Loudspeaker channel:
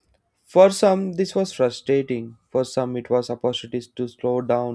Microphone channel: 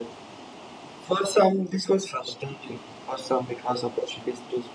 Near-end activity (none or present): none